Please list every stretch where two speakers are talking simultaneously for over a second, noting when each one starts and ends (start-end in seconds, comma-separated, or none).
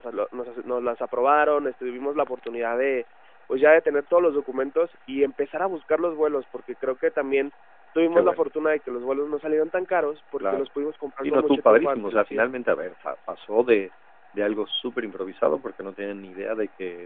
11.2-12.4